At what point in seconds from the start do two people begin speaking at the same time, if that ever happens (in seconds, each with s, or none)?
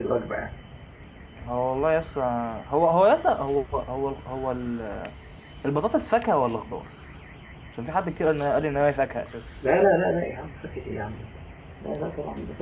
none